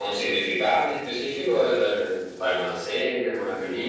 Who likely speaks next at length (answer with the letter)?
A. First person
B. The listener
B